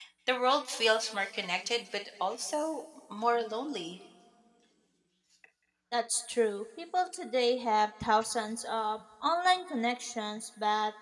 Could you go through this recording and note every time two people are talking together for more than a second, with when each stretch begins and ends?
none

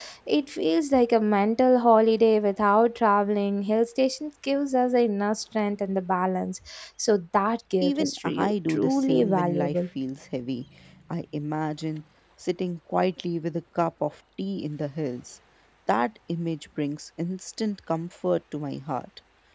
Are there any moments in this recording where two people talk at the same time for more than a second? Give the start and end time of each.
7.8-9.8

